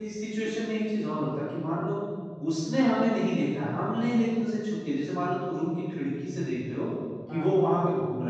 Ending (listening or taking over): listening